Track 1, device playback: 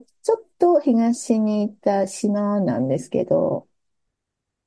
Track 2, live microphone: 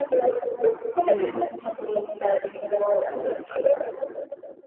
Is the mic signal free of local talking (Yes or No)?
No